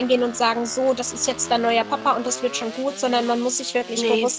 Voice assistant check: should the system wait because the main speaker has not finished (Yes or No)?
Yes